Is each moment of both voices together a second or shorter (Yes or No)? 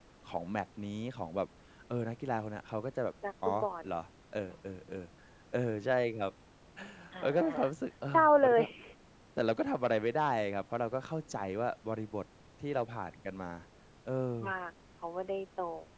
Yes